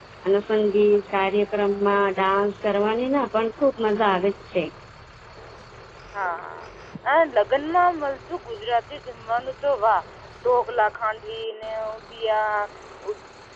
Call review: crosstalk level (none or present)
none